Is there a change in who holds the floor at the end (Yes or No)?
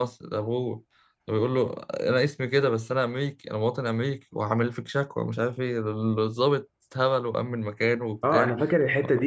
Yes